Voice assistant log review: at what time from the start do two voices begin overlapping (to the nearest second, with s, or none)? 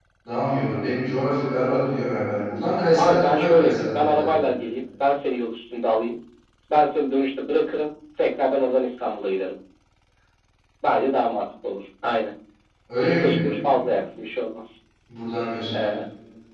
3 s